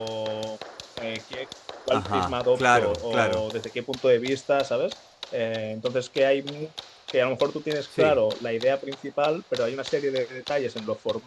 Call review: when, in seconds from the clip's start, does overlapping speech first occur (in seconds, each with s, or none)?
1.9 s